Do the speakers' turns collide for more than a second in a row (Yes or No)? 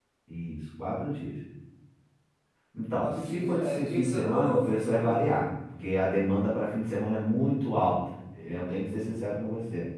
Yes